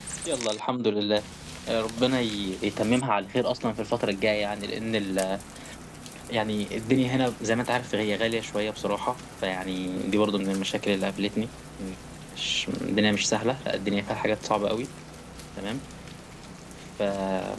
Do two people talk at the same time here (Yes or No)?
No